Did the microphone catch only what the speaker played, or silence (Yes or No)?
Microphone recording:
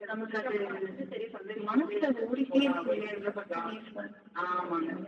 Yes